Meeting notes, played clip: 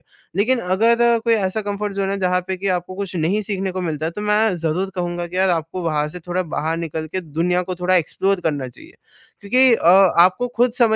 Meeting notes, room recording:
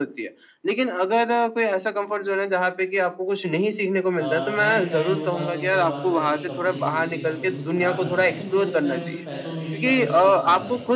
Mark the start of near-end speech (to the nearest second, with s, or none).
4 s